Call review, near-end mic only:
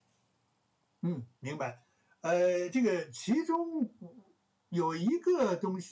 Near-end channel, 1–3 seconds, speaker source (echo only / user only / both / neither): user only